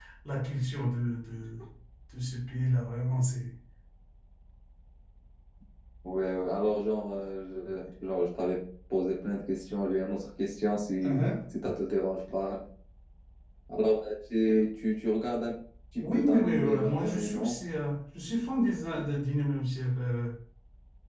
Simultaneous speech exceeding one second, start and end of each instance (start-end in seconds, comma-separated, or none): 16.1-17.6